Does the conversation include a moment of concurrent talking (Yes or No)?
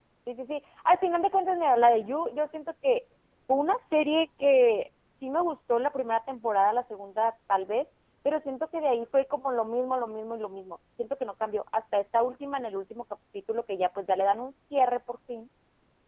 No